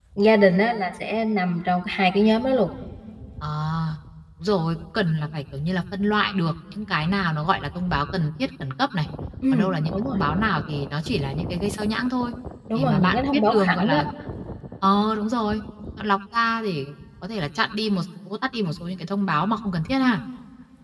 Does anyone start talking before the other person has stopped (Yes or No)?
Yes